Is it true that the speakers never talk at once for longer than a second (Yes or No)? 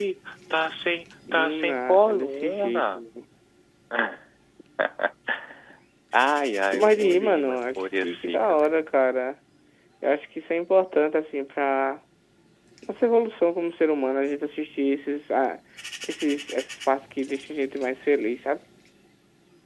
No